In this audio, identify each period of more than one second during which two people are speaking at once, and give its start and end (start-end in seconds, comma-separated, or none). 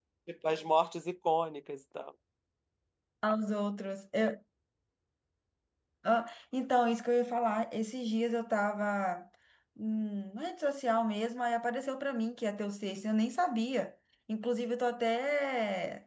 none